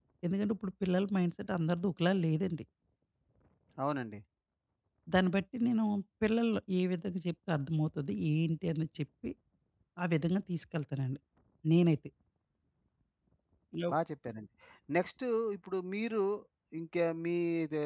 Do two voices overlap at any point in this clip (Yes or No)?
No